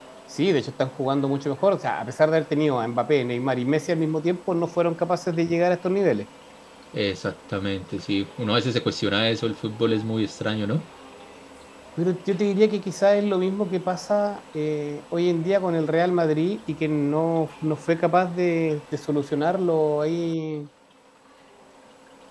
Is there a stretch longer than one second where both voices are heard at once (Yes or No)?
No